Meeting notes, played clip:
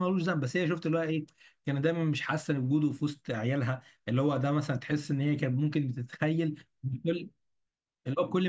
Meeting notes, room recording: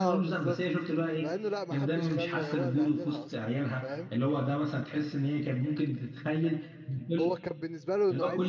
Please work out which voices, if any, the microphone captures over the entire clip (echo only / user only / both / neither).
both